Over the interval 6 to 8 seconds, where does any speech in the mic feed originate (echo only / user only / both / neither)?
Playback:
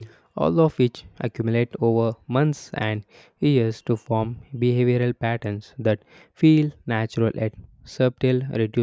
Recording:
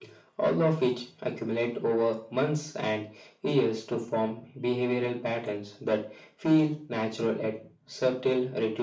echo only